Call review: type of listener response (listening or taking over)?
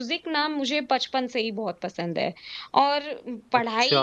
listening